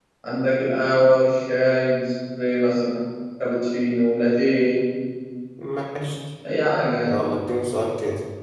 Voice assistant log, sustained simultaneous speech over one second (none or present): none